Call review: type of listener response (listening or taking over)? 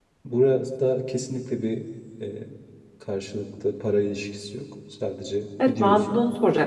taking over